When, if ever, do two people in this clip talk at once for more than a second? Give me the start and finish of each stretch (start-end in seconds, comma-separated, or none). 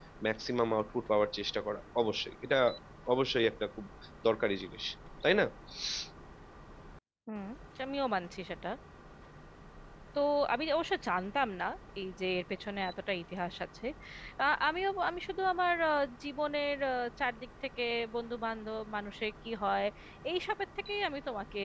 none